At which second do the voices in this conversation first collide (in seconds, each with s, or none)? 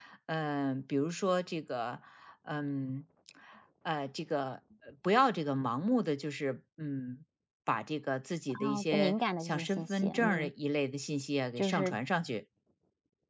8.5 s